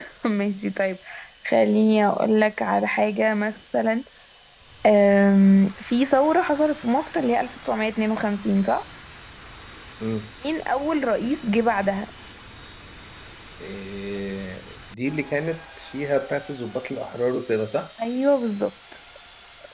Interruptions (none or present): none